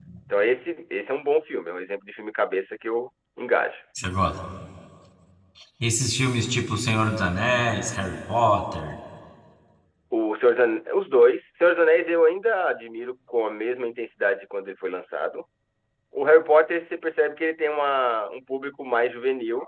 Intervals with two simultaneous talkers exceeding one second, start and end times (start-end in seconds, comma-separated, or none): none